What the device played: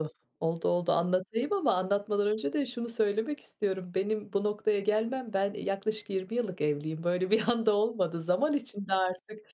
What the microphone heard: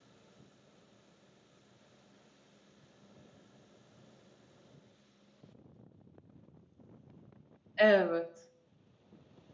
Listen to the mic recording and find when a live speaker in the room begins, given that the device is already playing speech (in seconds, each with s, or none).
7.8 s